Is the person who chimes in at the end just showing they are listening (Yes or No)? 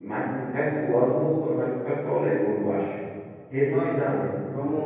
No